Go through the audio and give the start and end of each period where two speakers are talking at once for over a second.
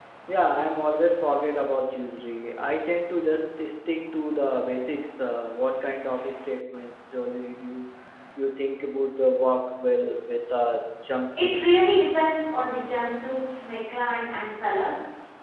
none

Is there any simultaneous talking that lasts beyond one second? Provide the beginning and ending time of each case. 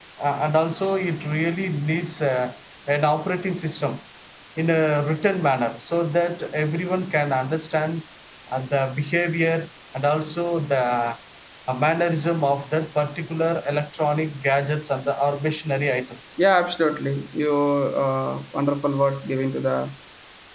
none

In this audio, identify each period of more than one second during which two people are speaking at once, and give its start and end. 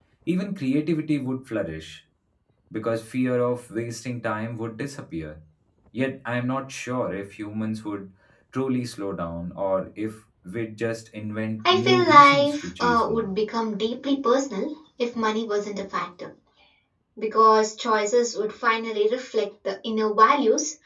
11.7-13.3

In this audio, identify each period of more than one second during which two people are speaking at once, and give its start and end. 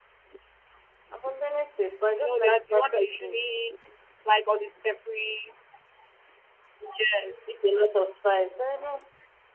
2.2-3.4

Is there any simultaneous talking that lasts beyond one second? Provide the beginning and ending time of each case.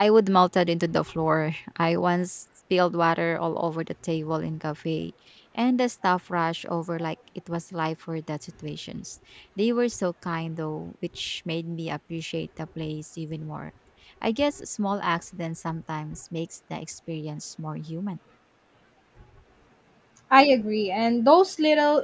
none

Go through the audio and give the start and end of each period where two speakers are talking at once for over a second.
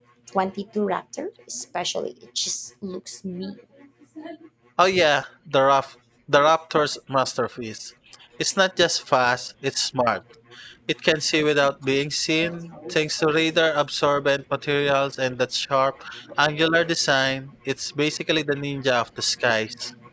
none

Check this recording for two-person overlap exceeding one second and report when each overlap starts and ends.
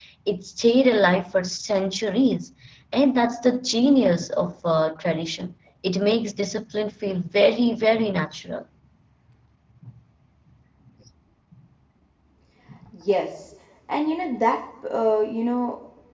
none

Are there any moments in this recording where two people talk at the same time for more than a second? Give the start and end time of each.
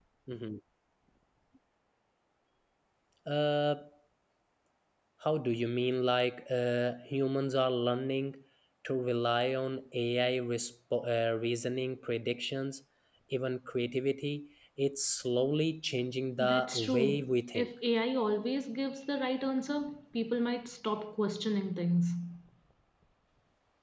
16.4-17.7

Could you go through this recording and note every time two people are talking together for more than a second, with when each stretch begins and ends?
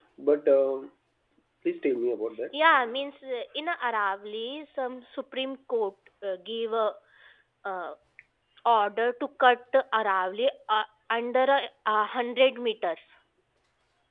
none

